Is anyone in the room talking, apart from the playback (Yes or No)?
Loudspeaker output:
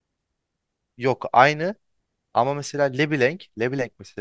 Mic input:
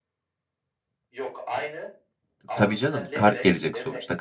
Yes